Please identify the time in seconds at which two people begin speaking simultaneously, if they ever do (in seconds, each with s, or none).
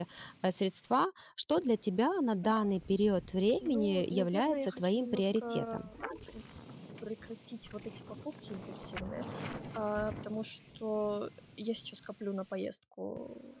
3.6 s